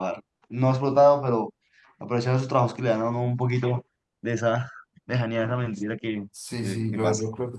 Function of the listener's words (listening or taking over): taking over